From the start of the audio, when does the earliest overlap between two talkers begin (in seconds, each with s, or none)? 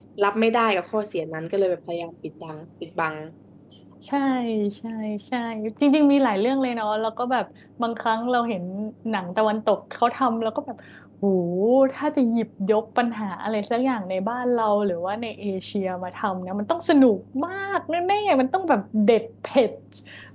none